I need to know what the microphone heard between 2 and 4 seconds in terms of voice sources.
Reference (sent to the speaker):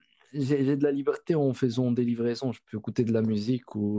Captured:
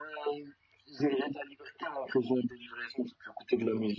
echo only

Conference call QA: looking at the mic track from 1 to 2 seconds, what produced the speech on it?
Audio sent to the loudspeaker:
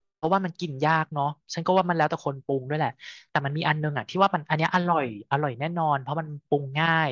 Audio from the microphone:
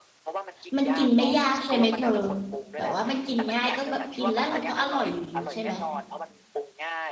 both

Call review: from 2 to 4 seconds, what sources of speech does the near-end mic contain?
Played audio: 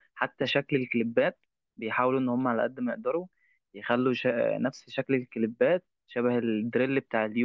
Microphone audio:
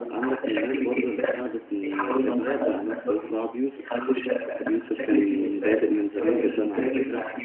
both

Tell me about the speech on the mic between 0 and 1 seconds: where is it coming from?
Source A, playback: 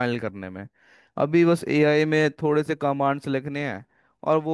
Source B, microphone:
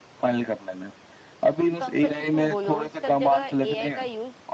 echo only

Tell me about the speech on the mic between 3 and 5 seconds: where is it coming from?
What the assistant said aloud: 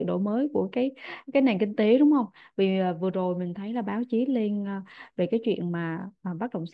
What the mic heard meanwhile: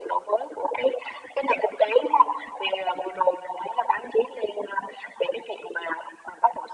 echo only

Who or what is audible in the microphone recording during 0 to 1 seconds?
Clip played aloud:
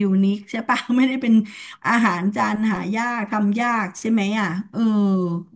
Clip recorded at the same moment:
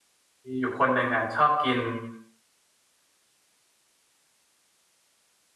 user only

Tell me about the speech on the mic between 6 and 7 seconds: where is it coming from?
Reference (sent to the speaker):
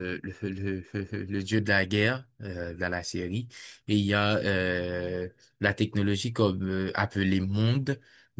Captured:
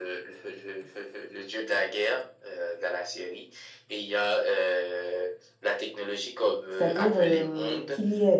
both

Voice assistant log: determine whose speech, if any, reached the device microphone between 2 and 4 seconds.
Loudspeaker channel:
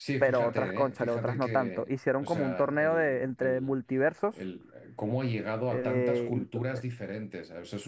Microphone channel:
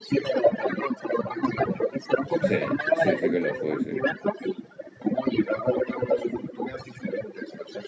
both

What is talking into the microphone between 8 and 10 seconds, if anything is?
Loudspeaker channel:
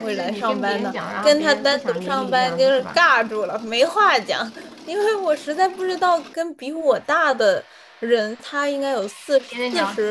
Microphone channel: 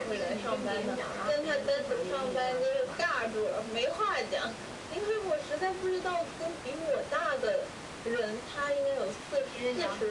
echo only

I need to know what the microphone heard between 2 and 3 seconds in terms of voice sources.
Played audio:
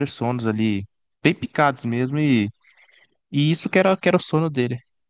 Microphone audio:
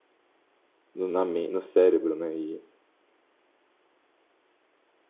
user only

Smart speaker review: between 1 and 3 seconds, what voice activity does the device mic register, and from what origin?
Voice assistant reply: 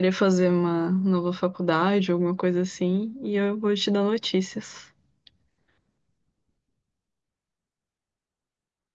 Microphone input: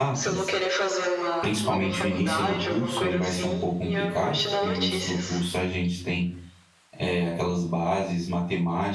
both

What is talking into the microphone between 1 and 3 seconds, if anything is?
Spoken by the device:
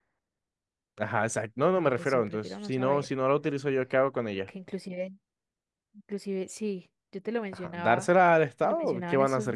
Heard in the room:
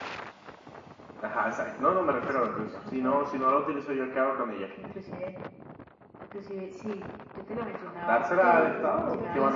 echo only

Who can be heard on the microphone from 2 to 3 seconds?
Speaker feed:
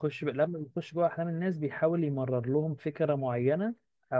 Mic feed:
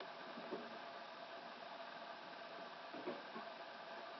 neither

